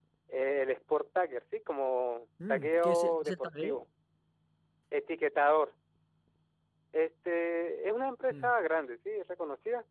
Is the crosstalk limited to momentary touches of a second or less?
No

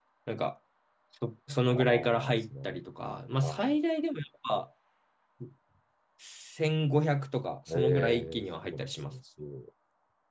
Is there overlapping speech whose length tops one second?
Yes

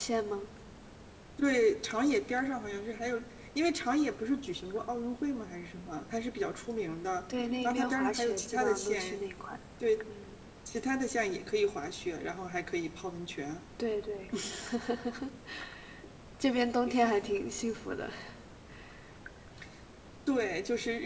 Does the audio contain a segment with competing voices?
Yes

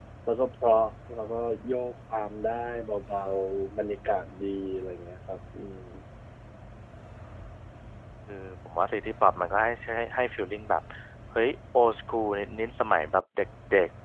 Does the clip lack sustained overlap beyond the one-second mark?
Yes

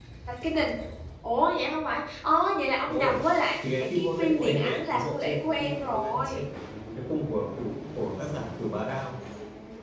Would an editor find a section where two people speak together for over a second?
Yes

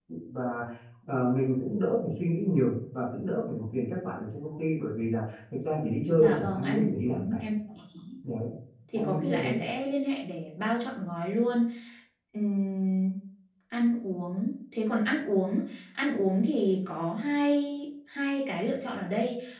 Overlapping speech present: Yes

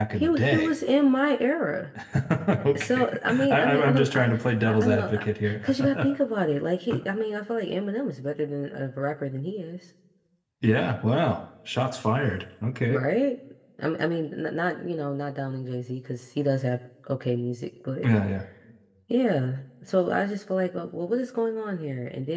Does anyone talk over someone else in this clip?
Yes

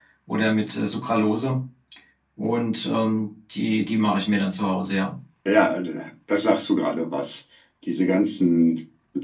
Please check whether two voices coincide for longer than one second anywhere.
No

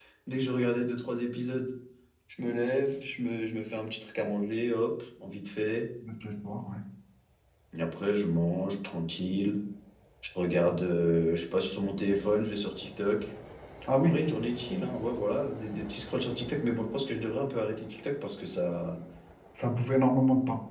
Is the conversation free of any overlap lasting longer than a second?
Yes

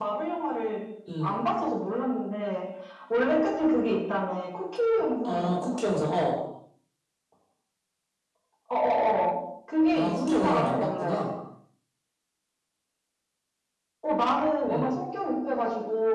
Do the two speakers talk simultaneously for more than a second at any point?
Yes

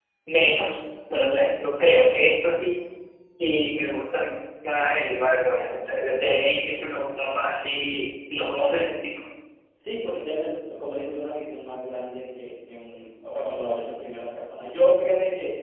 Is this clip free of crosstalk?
Yes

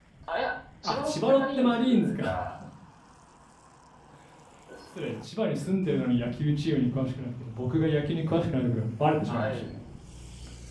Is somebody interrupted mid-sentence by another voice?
Yes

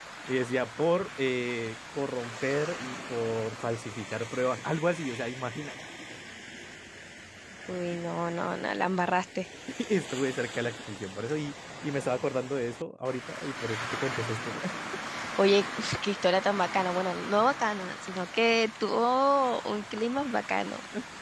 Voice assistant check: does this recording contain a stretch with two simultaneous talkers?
No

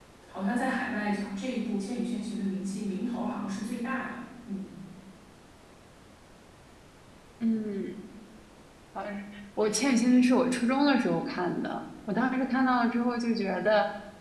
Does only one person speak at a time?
Yes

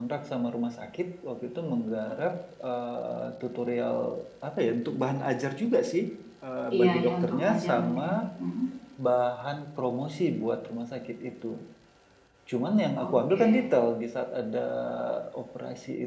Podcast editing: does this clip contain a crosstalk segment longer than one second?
Yes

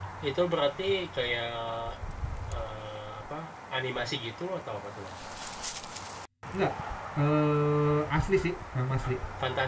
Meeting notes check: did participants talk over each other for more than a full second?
No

